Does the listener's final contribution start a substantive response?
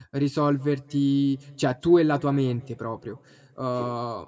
No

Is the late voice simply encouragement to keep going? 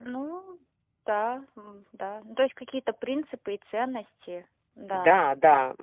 No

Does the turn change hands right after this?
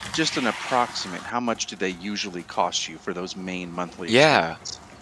Yes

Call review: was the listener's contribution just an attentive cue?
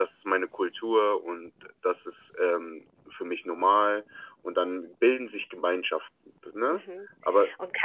No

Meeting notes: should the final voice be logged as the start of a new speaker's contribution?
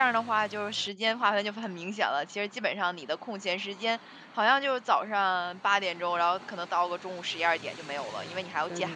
No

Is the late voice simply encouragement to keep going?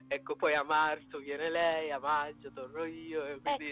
No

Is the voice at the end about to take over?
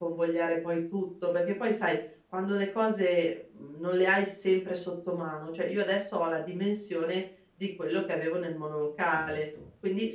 No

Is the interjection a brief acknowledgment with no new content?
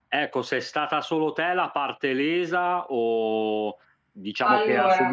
Yes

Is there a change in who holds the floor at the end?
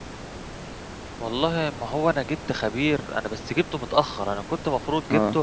No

